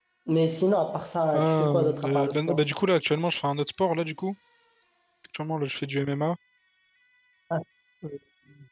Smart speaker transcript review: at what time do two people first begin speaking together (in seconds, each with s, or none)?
1.3 s